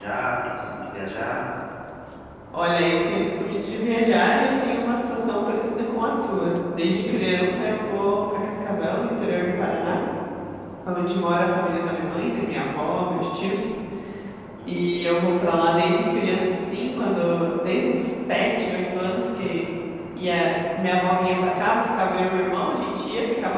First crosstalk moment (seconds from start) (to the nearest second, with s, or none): none